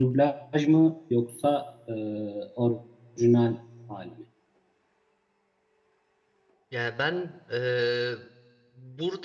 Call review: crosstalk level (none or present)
none